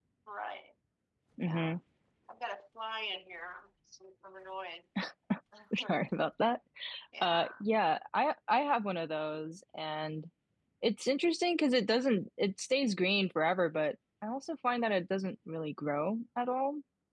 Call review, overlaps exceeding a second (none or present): none